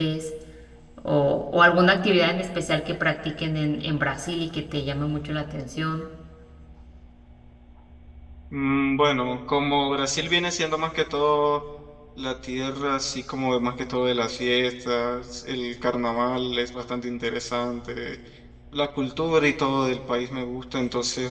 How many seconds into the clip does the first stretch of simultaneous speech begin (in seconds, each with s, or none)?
none